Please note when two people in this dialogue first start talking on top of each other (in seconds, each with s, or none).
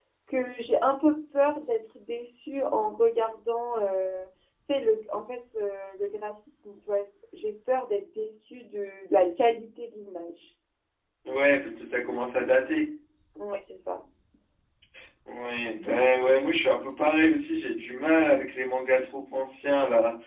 none